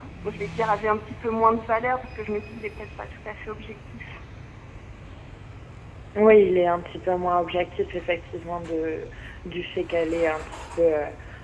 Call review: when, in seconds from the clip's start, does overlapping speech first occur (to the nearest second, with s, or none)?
none